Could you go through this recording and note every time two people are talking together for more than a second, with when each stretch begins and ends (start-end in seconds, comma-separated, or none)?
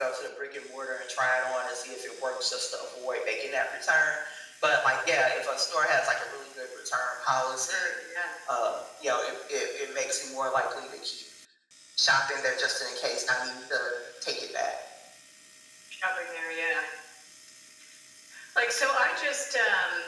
none